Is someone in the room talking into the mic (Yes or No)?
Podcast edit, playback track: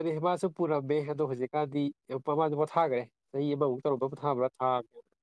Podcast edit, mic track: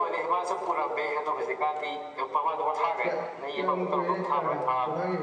Yes